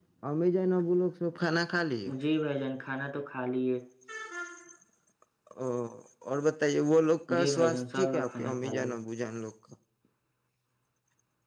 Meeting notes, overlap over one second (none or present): present